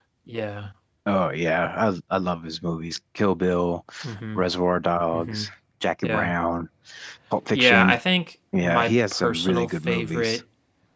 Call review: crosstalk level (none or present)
present